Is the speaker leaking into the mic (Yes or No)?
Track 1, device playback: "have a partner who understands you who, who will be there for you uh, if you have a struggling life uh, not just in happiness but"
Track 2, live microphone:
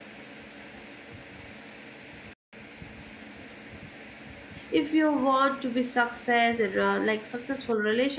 No